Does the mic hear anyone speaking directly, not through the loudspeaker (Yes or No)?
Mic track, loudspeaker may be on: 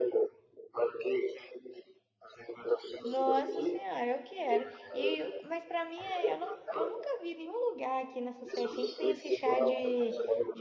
Yes